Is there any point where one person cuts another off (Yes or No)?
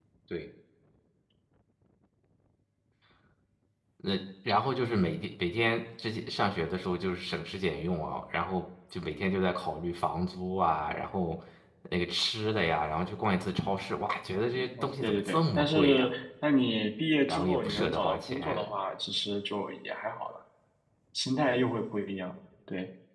Yes